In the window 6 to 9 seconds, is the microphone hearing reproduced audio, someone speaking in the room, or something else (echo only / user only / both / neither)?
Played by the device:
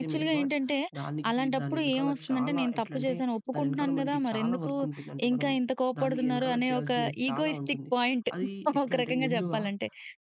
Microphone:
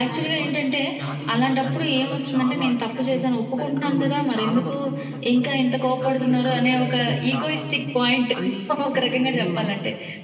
echo only